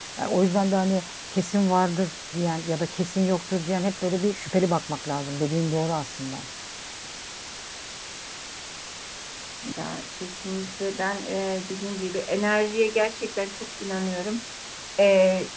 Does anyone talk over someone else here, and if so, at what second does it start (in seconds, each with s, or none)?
none